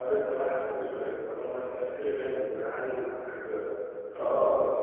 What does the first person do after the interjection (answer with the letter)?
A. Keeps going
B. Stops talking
B